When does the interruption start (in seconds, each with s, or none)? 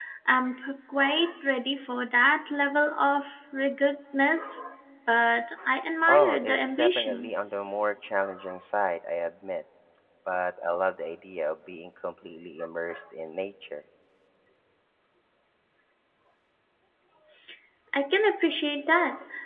6.1 s